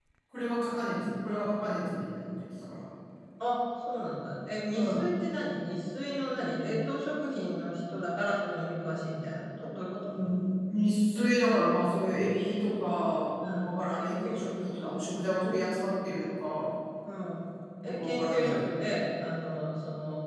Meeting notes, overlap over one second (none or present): present